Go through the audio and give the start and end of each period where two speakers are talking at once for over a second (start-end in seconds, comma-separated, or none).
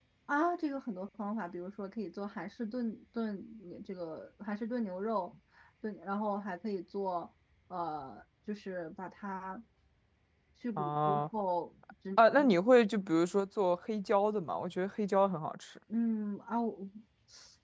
none